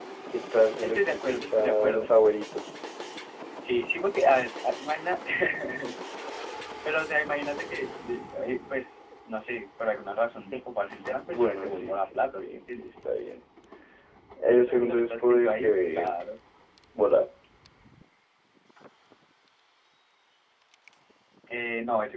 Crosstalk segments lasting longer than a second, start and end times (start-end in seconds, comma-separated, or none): 0.8-2.1, 11.2-12.8, 14.5-16.1